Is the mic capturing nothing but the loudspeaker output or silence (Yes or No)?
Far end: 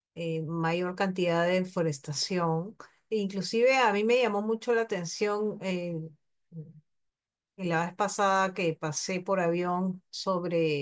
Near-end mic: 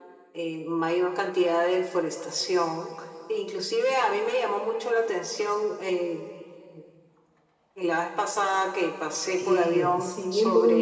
No